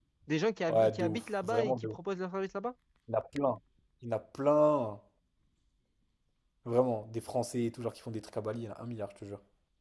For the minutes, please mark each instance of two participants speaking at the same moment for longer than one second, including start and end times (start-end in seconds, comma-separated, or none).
0.7-2.0